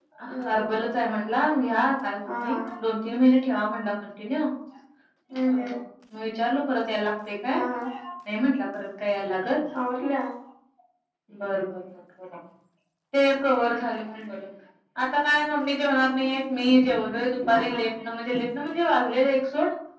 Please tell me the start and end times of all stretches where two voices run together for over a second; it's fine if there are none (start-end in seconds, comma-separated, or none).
none